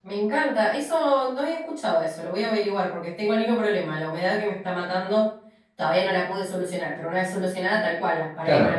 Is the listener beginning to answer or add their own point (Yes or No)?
Yes